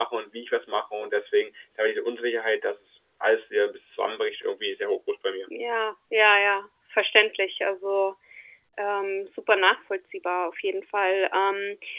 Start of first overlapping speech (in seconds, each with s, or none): none